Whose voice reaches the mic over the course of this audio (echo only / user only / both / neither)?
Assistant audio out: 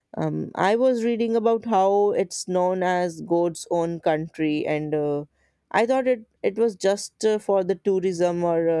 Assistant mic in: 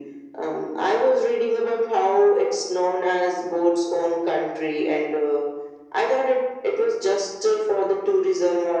echo only